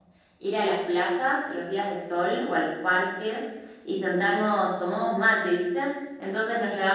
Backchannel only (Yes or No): Yes